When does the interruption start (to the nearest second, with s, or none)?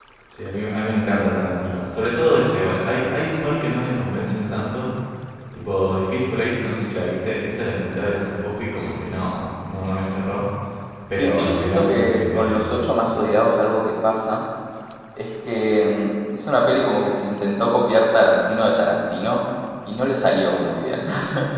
11 s